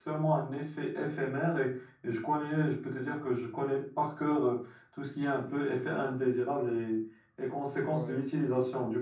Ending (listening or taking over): listening